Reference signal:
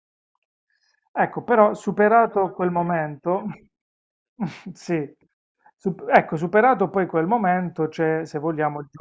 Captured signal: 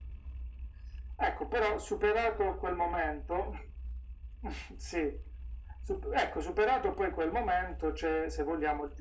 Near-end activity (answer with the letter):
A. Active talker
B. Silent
B